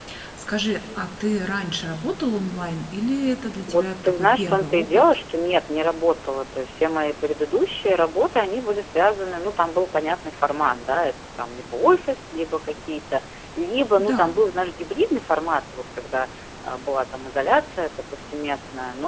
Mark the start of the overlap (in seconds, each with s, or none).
3.7 s